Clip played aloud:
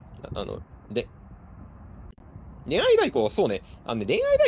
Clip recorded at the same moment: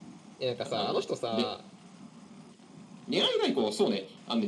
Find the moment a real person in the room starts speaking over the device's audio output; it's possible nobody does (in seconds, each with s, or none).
0.4 s